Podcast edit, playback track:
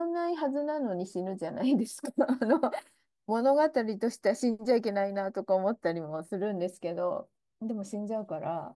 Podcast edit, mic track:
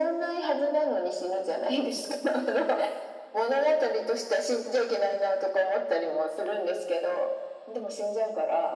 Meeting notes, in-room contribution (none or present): none